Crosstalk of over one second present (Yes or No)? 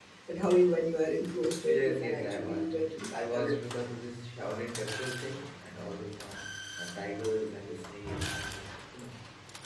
Yes